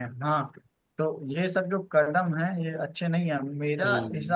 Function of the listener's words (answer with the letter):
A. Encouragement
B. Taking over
A